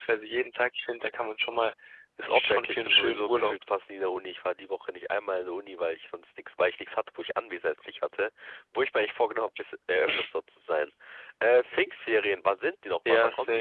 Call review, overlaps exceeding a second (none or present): present